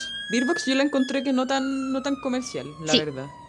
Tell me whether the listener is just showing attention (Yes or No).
No